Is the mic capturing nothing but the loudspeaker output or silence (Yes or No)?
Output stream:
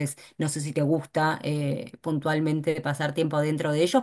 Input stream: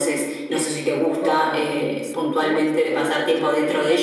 No